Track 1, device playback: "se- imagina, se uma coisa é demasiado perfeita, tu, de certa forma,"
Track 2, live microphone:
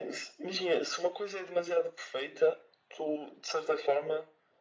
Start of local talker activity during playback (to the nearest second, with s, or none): none